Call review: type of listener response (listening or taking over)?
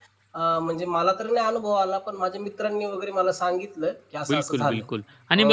taking over